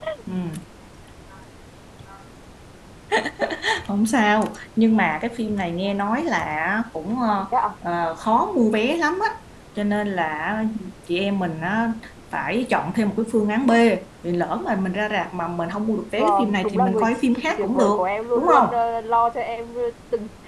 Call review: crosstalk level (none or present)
present